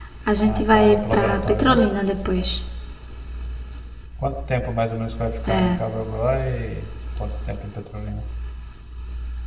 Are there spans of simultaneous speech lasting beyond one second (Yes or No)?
Yes